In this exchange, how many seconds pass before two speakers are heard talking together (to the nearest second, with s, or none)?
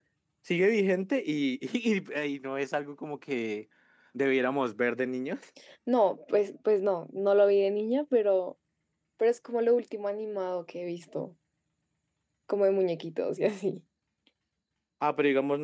none